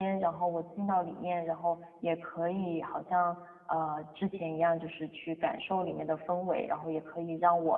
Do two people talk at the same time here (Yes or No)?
No